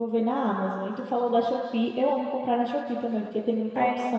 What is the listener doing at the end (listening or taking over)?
taking over